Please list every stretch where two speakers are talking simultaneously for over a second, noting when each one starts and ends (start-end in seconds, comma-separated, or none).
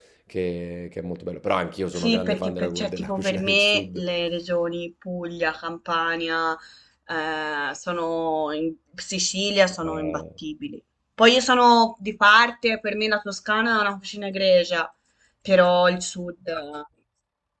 1.9-4.0